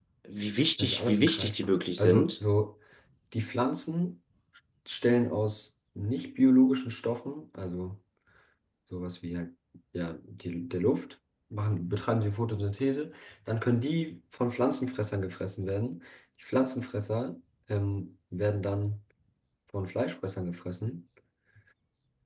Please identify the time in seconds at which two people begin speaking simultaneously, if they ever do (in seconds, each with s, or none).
0.8 s